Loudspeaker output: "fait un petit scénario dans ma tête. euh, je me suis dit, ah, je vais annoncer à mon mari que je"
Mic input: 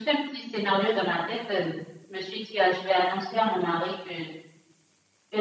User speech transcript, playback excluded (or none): none